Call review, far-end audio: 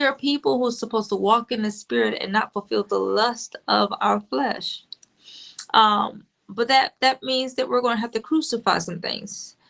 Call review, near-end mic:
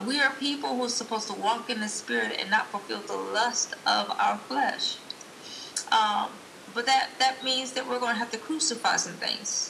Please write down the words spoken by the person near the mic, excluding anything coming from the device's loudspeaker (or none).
none